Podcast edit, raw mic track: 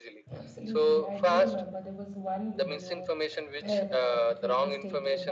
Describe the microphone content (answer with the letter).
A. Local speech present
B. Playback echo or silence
A